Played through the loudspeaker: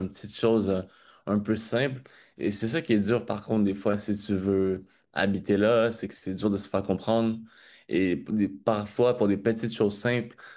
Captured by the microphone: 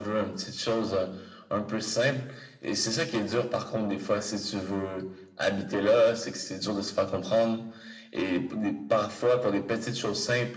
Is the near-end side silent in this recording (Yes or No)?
Yes